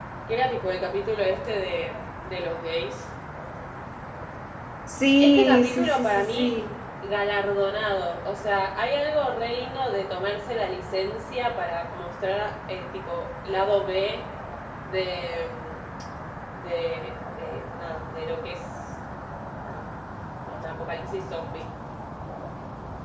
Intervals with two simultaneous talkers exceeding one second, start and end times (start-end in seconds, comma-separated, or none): 5.2-6.5